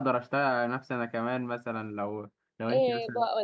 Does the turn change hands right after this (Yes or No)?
Yes